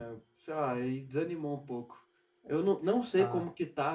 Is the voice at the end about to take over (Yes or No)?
No